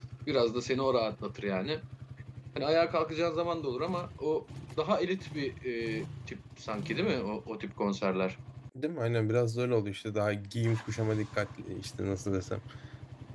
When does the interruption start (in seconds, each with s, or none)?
none